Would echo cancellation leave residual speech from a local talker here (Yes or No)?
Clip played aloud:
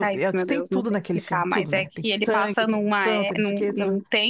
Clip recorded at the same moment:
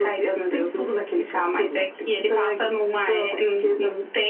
No